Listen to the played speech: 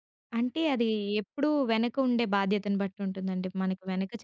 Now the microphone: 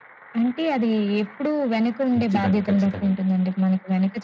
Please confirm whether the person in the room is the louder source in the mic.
No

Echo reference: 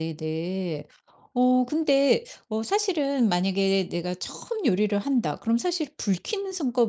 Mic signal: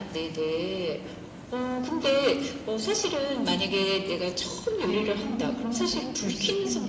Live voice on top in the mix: No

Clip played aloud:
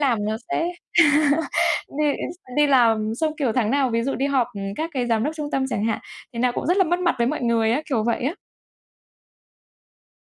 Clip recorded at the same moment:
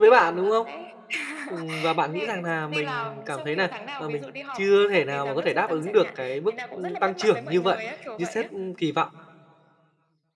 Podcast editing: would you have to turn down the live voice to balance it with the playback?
Yes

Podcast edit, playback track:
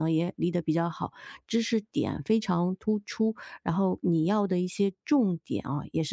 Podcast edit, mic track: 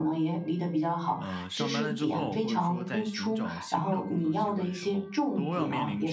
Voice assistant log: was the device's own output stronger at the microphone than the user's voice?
Yes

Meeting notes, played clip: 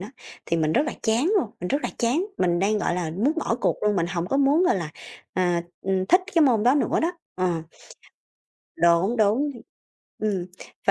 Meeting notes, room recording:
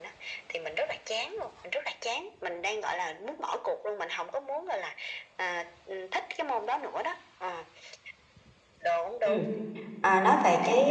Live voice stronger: Yes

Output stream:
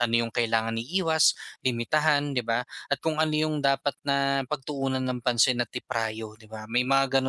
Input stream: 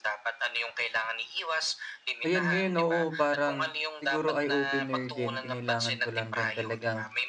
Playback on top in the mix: No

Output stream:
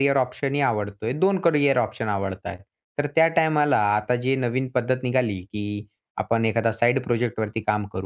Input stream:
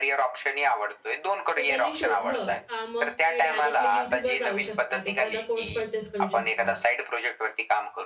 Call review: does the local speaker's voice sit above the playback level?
No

